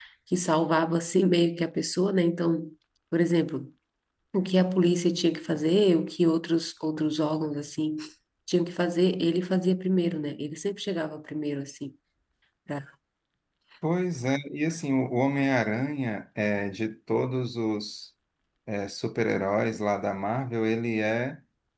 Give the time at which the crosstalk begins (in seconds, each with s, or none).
none